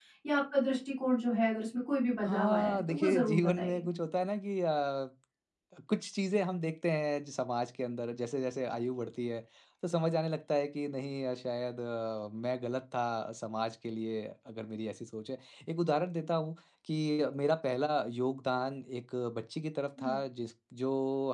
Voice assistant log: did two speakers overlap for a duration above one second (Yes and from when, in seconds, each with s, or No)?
Yes, from 2.2 s